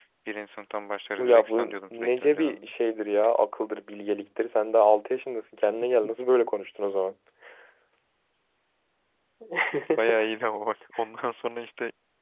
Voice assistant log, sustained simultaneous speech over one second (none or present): present